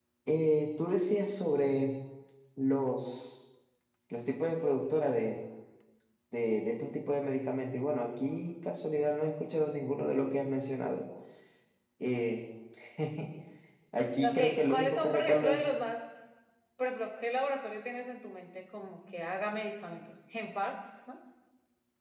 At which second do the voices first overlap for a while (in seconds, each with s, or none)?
14.2 s